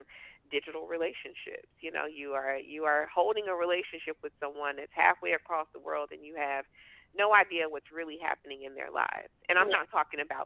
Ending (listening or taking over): listening